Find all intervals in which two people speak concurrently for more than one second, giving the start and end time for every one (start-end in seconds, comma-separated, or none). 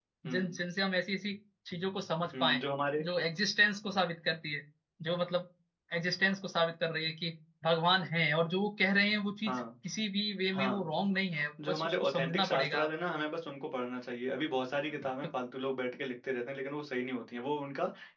11.7-12.9